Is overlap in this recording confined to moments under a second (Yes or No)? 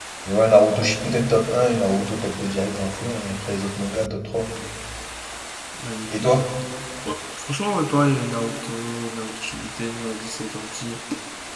Yes